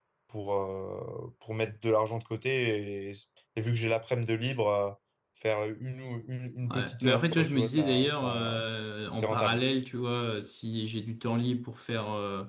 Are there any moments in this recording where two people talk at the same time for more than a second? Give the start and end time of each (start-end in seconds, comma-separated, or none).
6.7-8.6